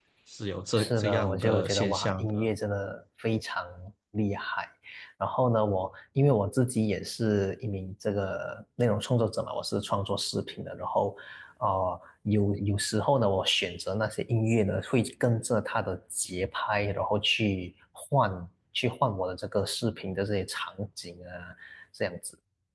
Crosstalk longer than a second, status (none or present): present